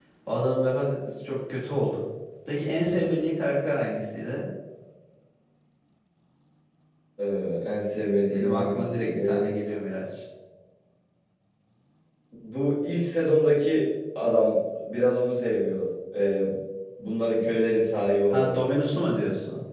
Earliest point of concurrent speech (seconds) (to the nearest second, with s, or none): 8 s